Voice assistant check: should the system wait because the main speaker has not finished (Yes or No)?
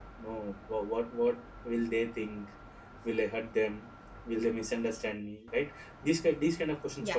Yes